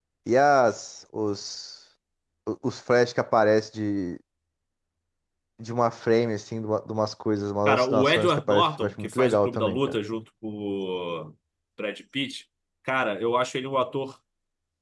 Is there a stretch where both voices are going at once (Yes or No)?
Yes